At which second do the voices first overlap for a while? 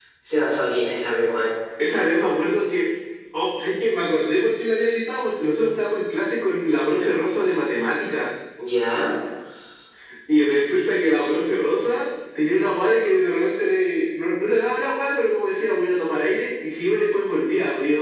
none

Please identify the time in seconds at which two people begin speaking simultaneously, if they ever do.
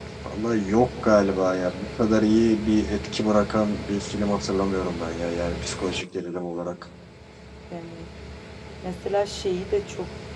none

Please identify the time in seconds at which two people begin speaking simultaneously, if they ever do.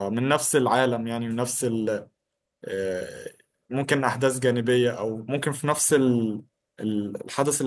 none

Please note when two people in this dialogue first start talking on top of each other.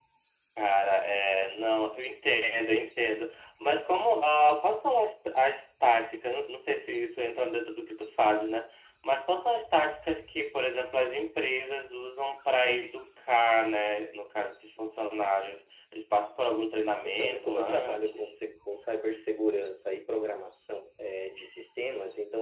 17.0 s

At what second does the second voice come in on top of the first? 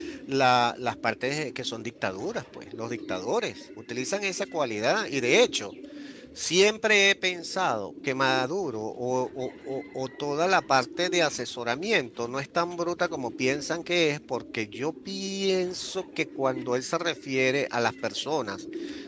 none

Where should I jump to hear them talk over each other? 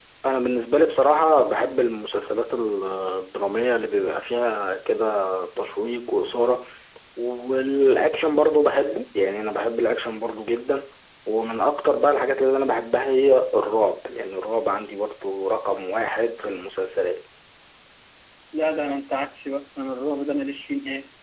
none

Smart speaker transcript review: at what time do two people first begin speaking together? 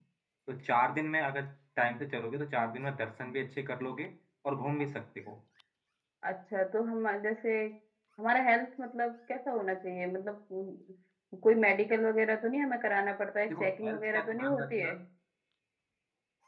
13.5 s

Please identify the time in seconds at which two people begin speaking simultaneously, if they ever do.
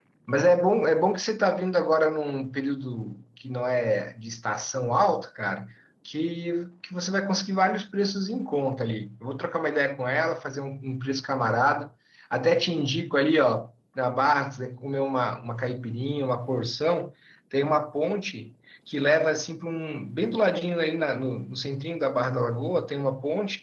none

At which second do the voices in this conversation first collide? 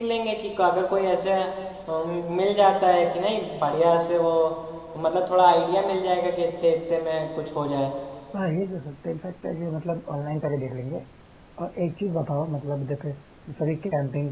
none

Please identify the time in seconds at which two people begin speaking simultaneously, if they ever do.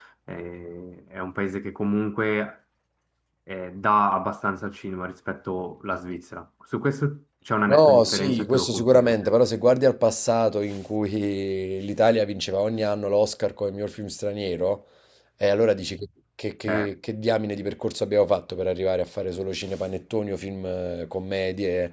7.7 s

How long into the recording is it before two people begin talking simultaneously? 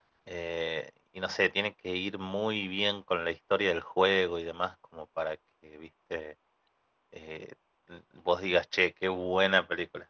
none

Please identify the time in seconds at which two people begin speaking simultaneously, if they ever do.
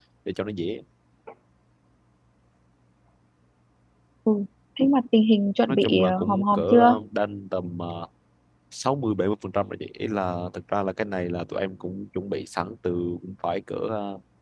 5.7 s

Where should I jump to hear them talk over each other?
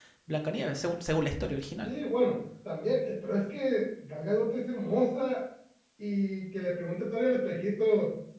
none

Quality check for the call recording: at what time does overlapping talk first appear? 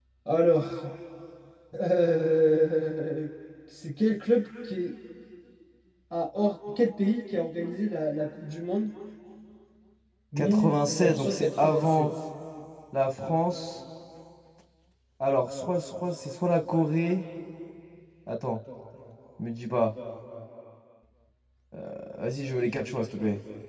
10.4 s

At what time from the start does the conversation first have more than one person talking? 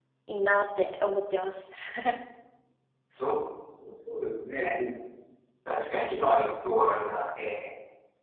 none

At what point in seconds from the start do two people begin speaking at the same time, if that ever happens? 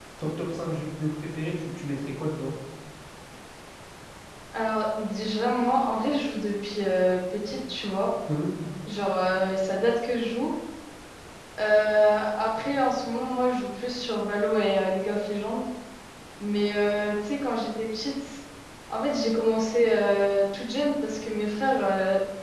none

